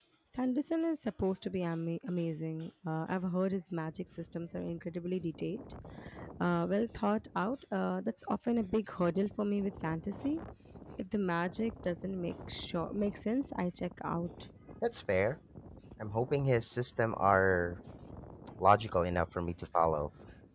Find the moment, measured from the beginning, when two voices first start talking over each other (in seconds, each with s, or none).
none